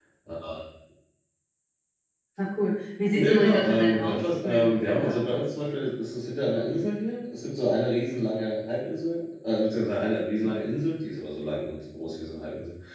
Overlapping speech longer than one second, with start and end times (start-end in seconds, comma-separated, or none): 3.1-5.4